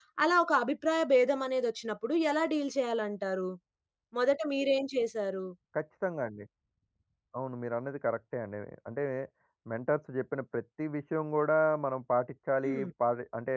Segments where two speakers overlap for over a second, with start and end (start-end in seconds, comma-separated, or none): none